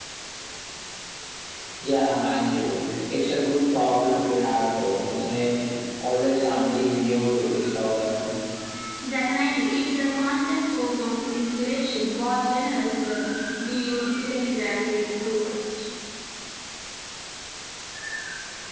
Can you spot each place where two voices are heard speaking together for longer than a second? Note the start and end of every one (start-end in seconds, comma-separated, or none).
none